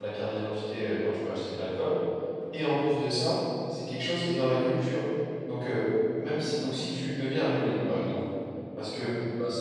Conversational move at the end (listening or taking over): listening